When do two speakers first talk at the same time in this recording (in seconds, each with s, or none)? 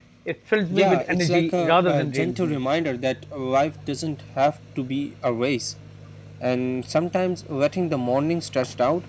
0.7 s